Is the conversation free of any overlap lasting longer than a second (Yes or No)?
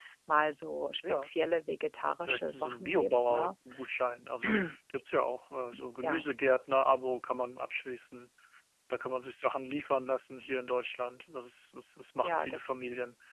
No